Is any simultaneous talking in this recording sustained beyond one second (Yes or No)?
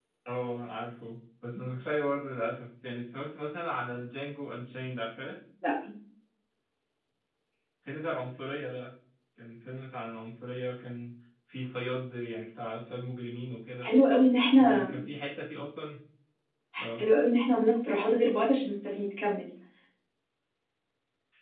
No